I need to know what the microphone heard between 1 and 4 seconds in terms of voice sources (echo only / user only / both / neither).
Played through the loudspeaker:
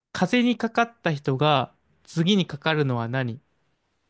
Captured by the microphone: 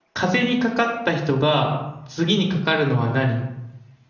echo only